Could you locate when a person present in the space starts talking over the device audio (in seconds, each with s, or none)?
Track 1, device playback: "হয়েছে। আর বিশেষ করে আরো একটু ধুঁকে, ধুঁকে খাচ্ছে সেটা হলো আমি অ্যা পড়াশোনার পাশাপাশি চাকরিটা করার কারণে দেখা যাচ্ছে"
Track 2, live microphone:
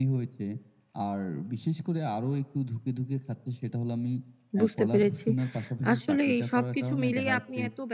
4.6 s